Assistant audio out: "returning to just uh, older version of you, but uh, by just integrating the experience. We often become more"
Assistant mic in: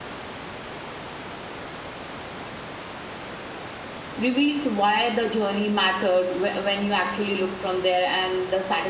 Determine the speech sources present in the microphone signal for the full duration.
user only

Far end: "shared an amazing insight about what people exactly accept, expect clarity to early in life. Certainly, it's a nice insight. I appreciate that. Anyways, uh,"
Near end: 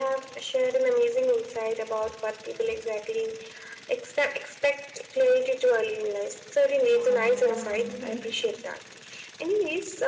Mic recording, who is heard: both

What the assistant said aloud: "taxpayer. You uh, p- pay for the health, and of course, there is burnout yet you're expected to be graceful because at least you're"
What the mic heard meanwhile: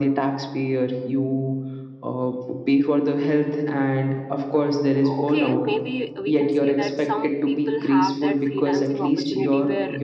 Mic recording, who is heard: both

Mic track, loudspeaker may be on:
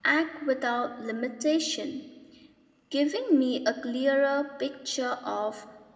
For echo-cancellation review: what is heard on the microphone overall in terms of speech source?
user only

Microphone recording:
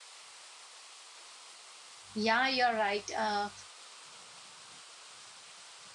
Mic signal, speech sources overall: user only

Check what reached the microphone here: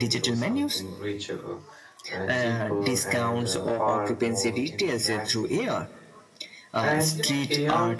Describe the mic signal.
both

